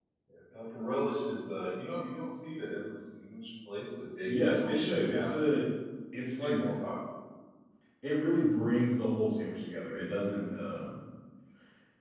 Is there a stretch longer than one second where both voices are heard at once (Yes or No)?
Yes